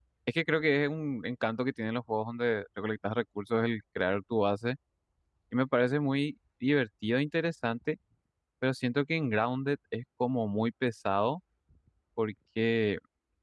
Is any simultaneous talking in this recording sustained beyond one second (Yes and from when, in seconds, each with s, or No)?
No